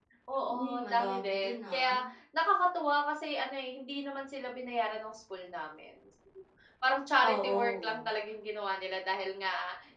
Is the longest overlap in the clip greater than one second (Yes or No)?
Yes